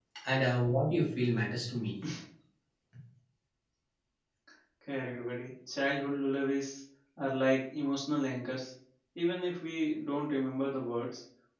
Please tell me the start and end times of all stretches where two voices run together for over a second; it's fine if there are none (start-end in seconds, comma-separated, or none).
none